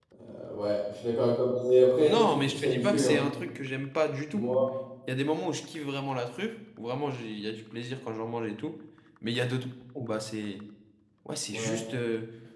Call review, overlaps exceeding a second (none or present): present